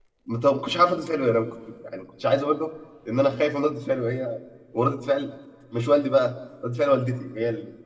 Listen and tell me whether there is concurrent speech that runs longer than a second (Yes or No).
No